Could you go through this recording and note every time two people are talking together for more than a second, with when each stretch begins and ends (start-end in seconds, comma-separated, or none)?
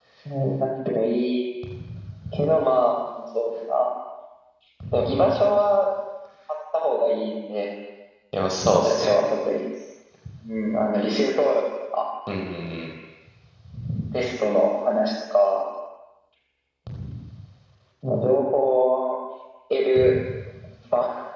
none